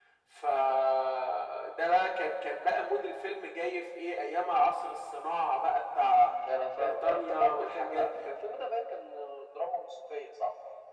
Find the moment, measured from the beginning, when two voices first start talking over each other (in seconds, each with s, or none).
6.8 s